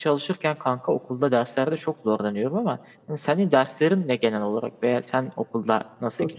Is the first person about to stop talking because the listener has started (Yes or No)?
Yes